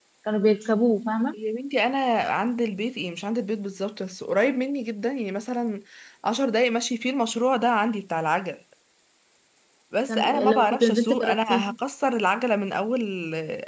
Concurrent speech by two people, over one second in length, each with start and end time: 10.1-11.6

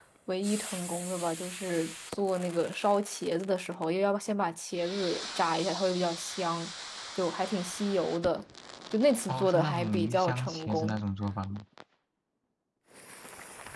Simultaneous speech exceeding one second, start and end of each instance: 9.3-11.0

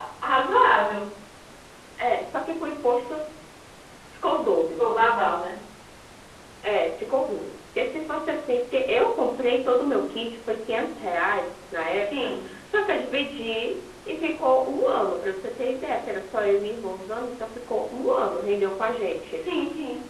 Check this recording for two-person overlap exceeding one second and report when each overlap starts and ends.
none

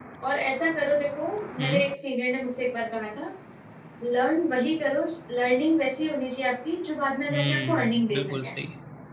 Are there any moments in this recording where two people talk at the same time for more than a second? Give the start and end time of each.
7.3-8.5

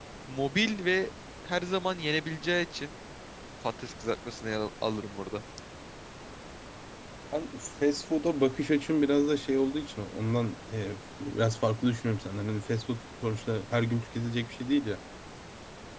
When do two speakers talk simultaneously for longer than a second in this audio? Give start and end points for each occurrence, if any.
none

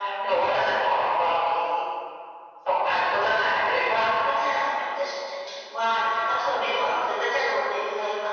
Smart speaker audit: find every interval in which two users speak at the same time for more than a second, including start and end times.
none

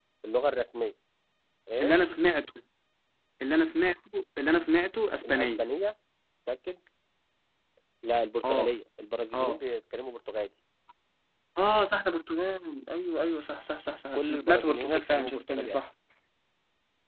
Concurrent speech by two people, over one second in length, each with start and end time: 14.1-15.8

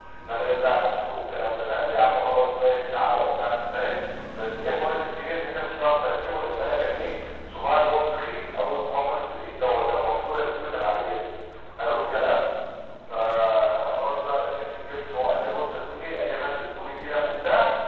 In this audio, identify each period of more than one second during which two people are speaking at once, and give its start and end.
none

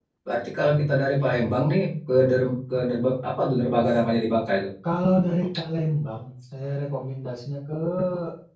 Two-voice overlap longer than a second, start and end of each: none

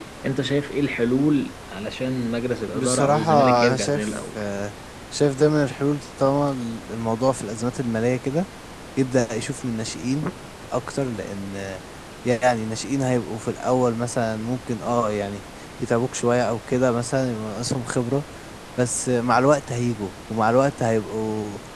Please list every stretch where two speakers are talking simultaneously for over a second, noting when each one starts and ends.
2.7-4.4

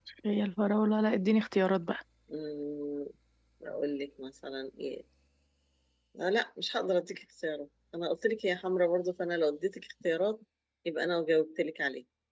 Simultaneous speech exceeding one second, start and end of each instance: none

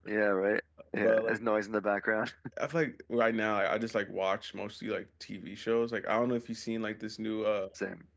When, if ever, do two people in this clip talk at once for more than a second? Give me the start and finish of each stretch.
none

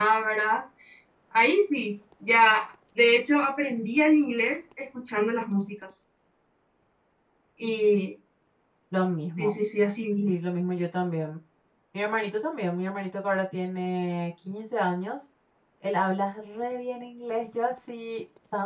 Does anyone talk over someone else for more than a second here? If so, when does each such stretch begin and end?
none

